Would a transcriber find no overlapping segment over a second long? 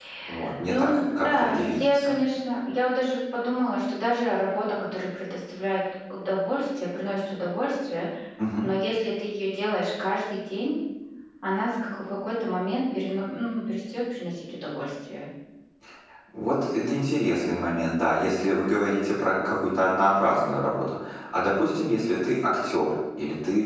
No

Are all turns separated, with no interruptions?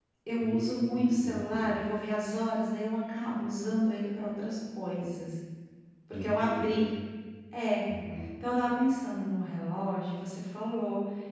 No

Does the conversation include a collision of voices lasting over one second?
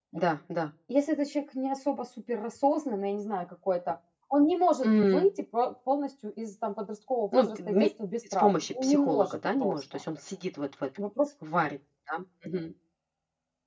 Yes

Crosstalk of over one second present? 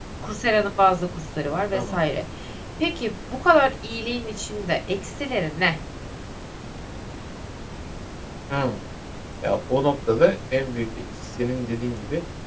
No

